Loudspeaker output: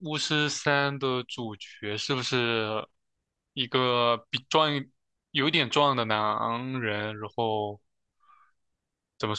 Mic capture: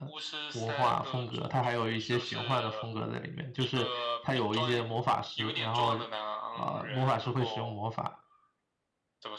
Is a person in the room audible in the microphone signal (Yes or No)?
Yes